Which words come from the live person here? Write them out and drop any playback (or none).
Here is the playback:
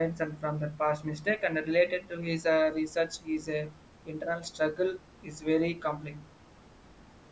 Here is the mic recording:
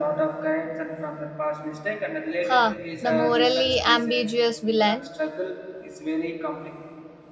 Huh, the morally ambiguous villain.